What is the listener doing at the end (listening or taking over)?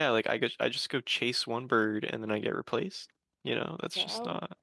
listening